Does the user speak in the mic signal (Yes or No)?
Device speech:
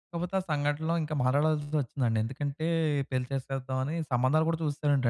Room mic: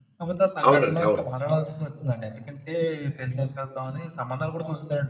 Yes